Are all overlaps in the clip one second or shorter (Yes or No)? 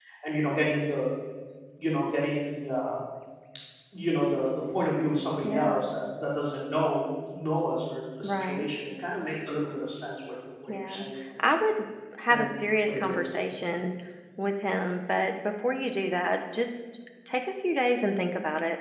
Yes